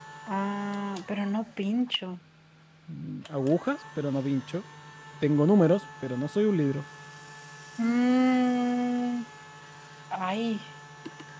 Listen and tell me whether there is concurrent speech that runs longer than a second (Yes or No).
No